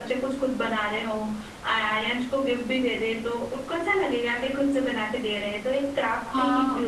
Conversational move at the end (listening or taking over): taking over